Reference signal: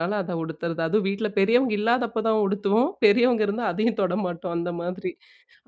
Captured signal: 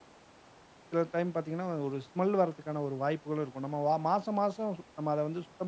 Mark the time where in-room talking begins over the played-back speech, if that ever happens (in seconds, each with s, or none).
0.9 s